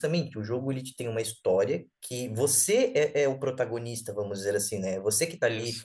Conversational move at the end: listening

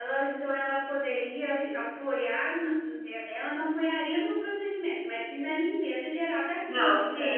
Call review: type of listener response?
taking over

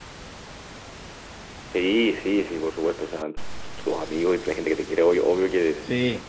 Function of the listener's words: listening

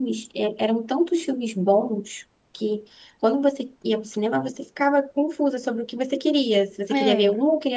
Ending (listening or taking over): listening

